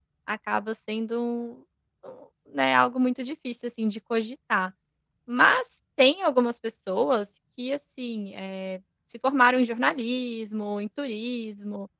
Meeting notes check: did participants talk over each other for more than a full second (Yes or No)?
No